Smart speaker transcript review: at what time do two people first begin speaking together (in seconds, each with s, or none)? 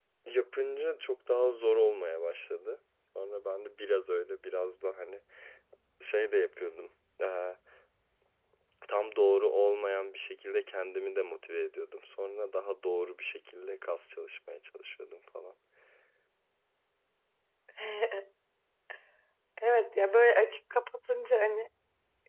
none